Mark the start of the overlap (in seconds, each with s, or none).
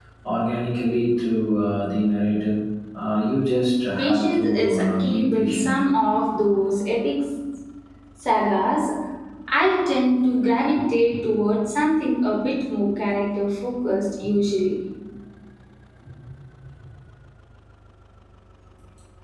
4.0 s